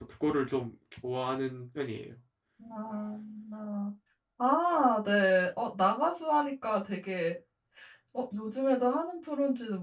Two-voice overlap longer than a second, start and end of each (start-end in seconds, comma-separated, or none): none